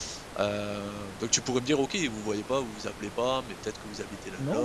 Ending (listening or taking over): taking over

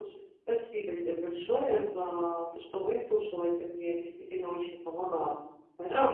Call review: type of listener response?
taking over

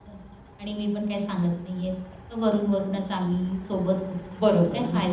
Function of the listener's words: taking over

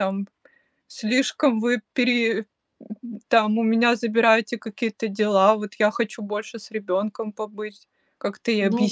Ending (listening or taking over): taking over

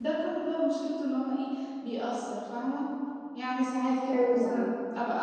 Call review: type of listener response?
listening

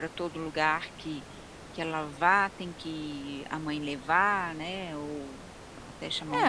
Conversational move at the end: taking over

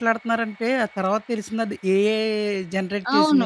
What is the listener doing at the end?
taking over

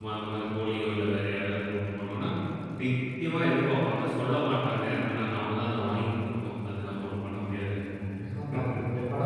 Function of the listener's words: taking over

